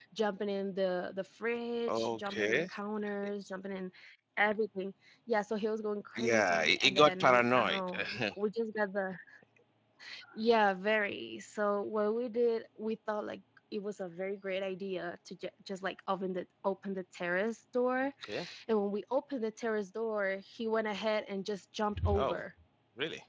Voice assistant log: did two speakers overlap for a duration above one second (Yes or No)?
Yes